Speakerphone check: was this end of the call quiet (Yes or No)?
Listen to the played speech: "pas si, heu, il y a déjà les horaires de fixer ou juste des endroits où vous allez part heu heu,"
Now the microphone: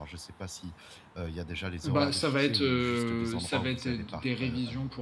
No